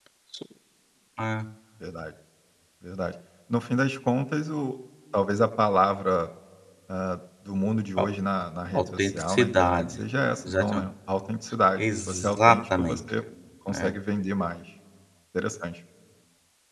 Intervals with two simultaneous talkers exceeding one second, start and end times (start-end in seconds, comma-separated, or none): 8.7-10.0, 11.8-13.0